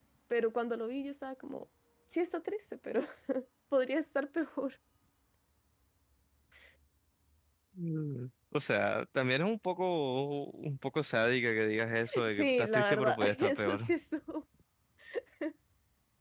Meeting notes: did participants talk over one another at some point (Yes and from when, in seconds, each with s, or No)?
Yes, from 12.1 s